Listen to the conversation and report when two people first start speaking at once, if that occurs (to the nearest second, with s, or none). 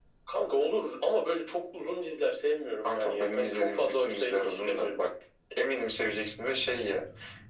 3 s